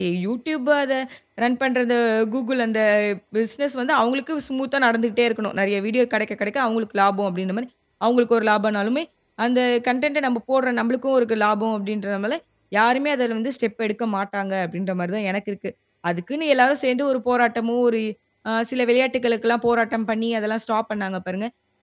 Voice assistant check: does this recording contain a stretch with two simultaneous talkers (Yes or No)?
No